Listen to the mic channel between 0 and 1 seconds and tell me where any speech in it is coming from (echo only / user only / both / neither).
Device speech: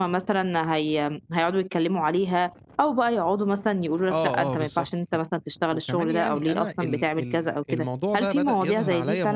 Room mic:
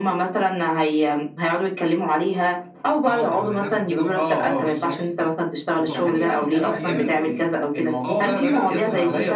echo only